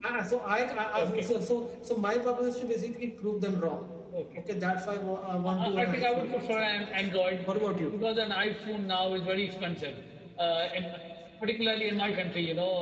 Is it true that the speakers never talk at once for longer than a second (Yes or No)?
No